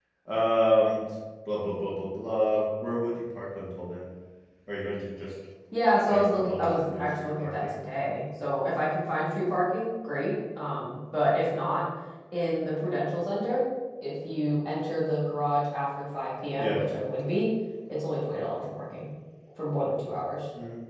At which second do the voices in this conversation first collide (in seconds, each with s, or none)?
6.1 s